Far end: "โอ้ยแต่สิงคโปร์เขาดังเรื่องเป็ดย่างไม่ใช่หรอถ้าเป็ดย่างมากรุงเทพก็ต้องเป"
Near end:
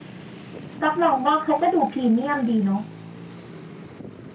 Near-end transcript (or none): กักมองว่าเขาก็ดูพรีเมียมดีเนาะ